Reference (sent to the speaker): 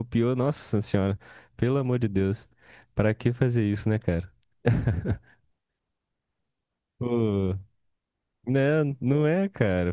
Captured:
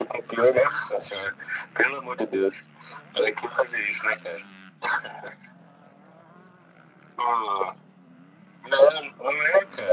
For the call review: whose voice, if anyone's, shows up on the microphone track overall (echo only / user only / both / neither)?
echo only